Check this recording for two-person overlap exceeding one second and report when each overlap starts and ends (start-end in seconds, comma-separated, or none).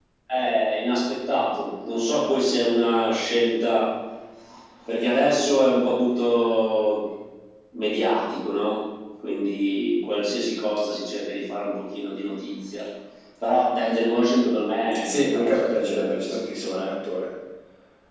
15.1-16.9